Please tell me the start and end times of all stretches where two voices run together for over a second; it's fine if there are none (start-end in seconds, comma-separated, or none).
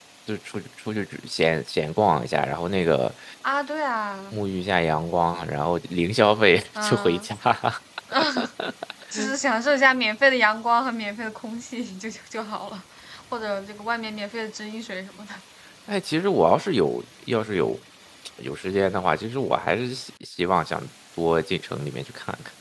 none